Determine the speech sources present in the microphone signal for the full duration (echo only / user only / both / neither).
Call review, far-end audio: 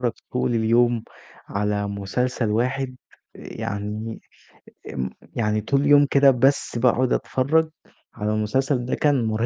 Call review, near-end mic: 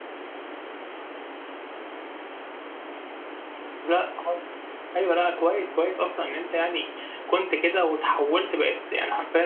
user only